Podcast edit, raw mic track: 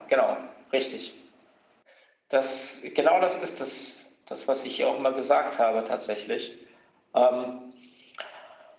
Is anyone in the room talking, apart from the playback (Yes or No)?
No